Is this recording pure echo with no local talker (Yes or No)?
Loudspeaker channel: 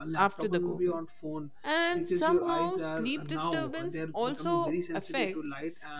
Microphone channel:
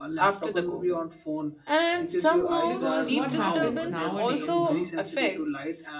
No